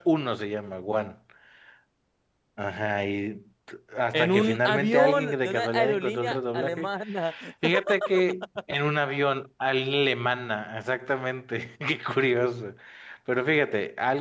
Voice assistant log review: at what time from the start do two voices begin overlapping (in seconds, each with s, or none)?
4.1 s